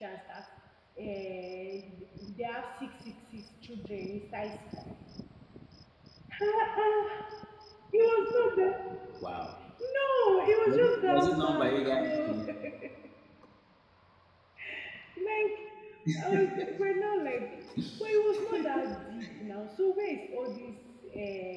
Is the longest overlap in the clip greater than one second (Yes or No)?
Yes